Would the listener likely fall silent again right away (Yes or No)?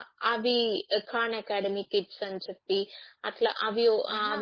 Yes